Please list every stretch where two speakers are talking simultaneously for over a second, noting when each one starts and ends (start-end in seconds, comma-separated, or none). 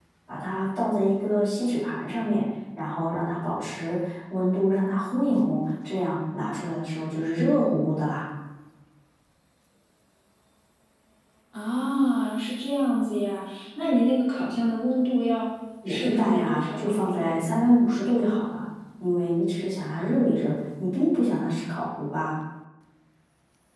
15.9-17.5